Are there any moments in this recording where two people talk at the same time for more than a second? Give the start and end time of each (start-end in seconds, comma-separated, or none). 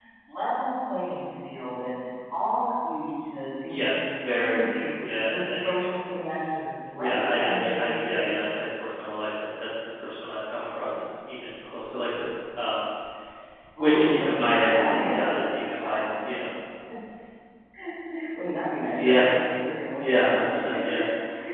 3.7-5.7, 7.0-8.2, 13.8-15.4